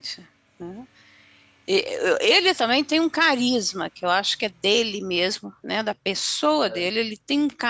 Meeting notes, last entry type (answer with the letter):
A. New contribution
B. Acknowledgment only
B